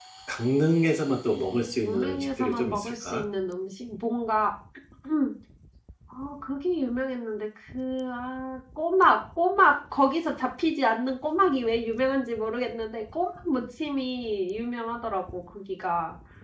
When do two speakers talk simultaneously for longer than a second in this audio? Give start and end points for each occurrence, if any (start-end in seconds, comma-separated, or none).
1.8-3.2